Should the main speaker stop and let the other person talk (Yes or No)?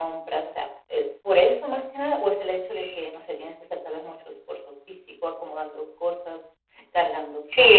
Yes